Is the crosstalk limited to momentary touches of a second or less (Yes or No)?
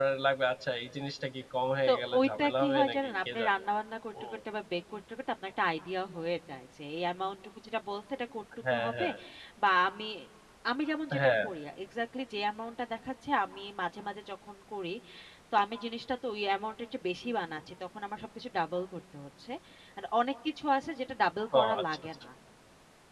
No